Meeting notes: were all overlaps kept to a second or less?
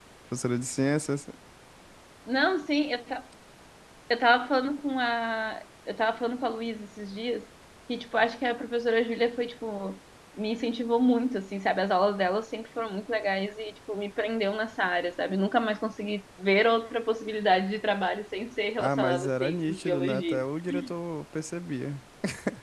No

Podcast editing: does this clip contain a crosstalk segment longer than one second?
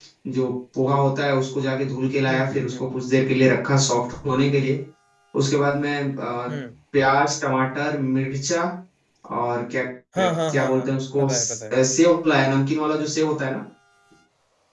Yes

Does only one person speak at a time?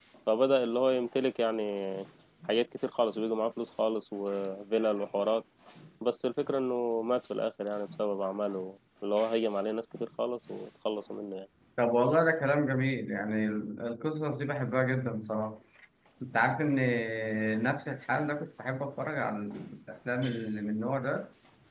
Yes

